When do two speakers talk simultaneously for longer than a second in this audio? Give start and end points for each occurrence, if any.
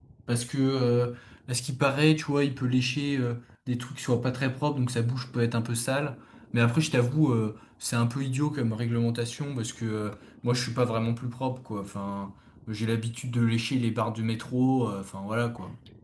none

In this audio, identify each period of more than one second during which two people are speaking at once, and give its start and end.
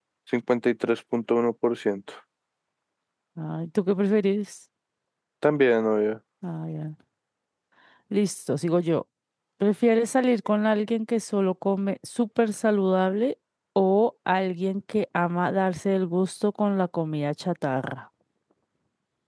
none

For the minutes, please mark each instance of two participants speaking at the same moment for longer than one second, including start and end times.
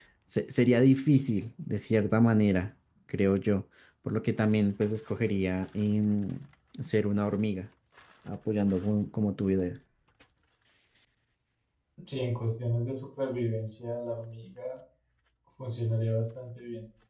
none

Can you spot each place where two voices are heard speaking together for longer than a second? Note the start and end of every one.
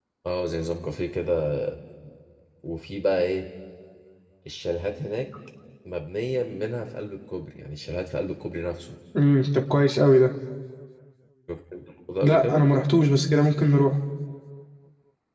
none

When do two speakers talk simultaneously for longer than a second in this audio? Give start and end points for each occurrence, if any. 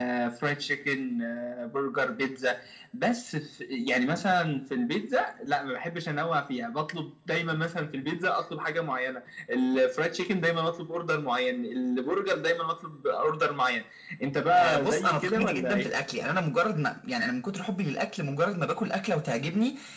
14.5-15.9

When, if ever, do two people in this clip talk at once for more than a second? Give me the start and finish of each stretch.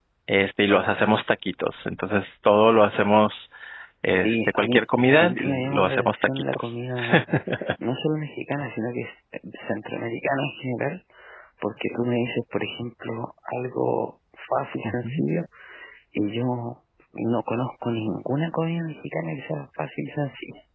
4.2-6.7

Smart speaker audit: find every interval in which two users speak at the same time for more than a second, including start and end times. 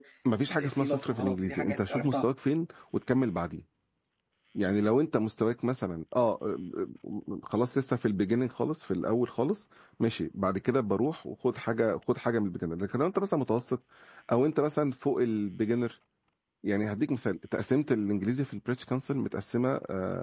0.6-2.2

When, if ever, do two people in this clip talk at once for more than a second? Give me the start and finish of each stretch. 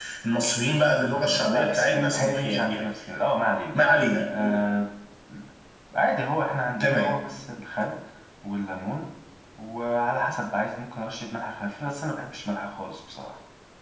1.1-2.8

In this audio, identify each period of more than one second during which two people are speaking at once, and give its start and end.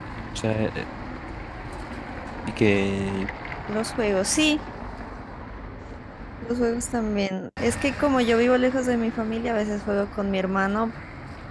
none

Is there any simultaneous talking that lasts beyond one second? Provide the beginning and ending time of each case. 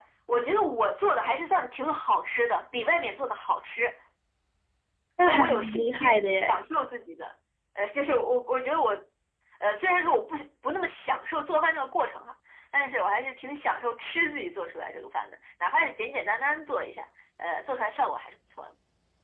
5.2-6.6

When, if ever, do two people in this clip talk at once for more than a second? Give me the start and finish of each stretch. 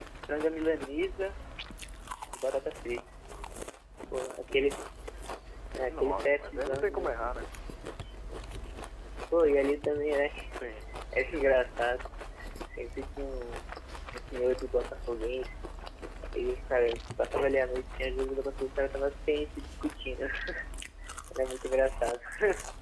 5.9-7.2

